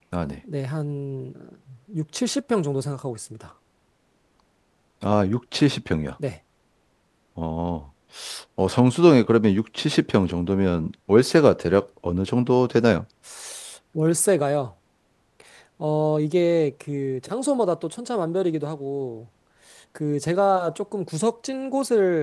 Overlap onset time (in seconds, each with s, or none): none